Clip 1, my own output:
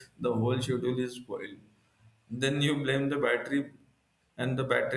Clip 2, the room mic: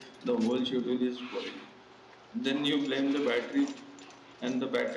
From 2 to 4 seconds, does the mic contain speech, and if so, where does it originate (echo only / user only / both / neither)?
echo only